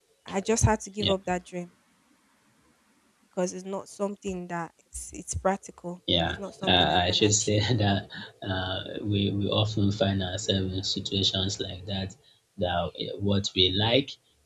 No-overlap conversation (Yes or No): No